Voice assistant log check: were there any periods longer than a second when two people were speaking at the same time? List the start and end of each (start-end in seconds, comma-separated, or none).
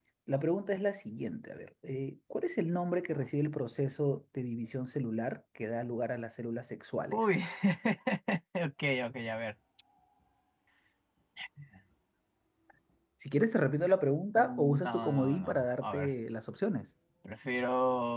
14.4-16.1